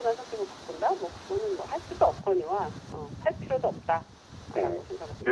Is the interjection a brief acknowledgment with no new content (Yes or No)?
No